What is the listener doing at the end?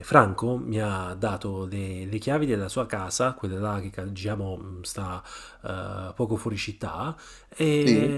listening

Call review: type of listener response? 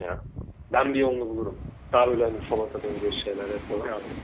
taking over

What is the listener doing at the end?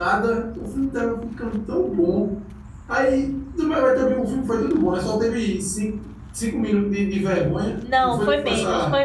taking over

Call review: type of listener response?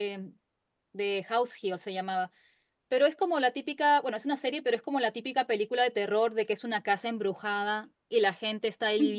listening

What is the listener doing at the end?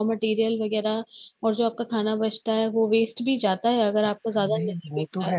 taking over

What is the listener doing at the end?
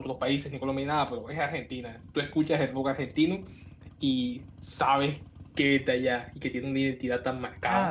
taking over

